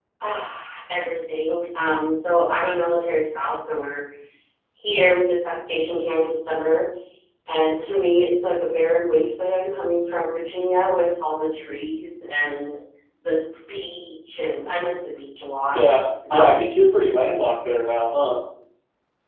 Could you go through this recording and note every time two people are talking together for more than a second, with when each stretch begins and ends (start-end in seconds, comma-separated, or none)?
none